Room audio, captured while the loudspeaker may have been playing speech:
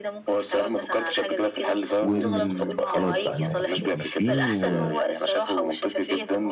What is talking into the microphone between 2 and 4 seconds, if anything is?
both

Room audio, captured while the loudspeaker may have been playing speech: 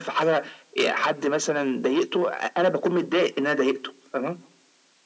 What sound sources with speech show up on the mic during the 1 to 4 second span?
echo only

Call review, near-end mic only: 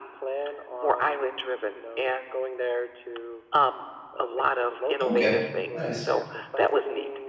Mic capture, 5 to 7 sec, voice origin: both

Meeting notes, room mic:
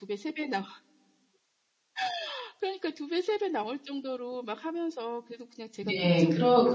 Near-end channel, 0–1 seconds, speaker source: echo only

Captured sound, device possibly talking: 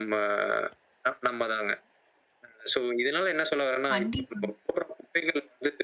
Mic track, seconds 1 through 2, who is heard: echo only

